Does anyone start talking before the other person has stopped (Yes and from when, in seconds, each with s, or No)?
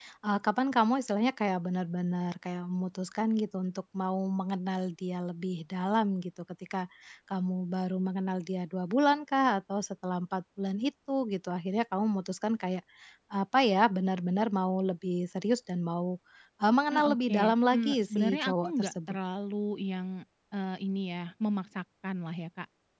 Yes, from 16.9 s